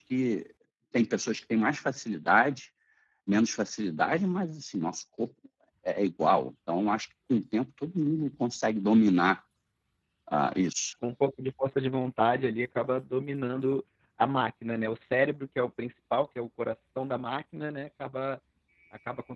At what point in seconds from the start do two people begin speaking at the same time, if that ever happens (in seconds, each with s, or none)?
none